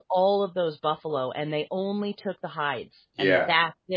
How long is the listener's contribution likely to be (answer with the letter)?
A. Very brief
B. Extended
A